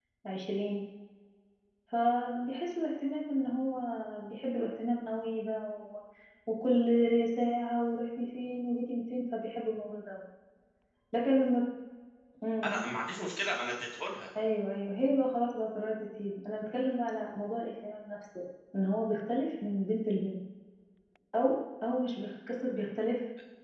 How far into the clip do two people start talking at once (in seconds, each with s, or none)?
none